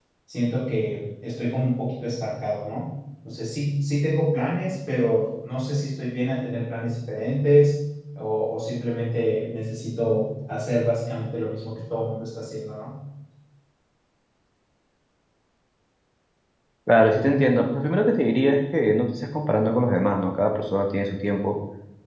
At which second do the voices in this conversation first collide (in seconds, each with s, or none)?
none